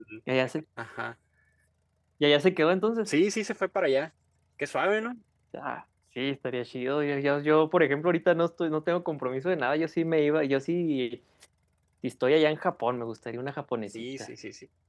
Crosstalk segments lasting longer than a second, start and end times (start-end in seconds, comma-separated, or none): none